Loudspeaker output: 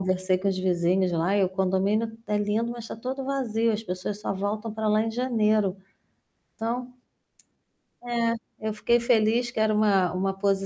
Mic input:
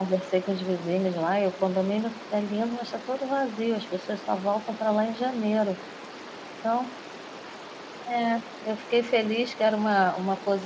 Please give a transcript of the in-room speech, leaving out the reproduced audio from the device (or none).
none